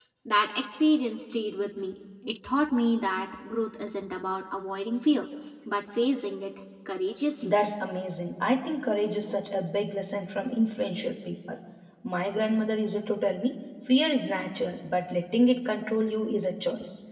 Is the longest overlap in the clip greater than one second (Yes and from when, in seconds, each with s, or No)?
No